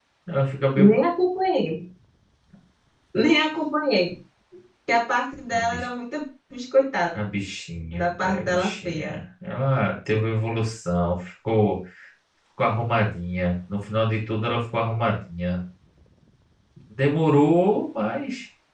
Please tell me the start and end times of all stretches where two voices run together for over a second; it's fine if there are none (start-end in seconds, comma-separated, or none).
7.9-9.2